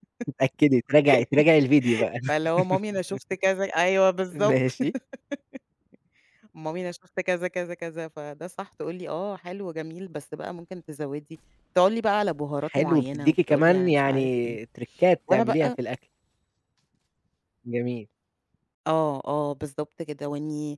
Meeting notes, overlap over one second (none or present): present